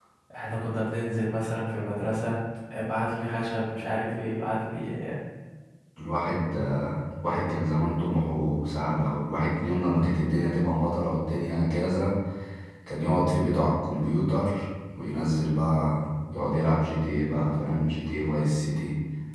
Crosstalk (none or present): none